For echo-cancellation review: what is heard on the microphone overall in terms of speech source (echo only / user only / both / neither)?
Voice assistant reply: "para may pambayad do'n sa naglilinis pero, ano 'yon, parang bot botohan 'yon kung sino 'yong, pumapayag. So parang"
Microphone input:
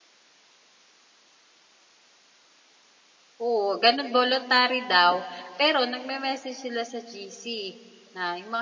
user only